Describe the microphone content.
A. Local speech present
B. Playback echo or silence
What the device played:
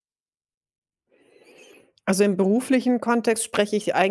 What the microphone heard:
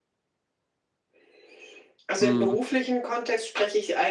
A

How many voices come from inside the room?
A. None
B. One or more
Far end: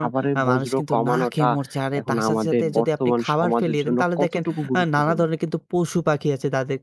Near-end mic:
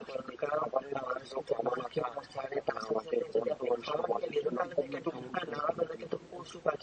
B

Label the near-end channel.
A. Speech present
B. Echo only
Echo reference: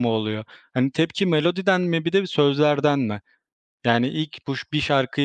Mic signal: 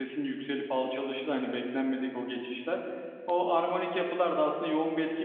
A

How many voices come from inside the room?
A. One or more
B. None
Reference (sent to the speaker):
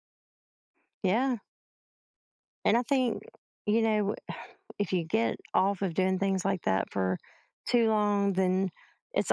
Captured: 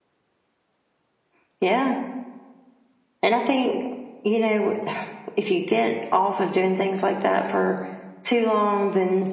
B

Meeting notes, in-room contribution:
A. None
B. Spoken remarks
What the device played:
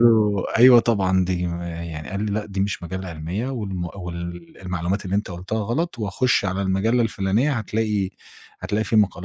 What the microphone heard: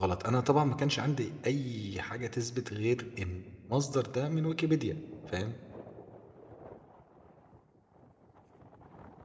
B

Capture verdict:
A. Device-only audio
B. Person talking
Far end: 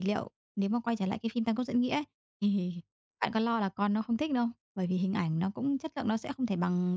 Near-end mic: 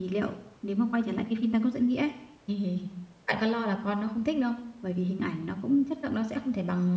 A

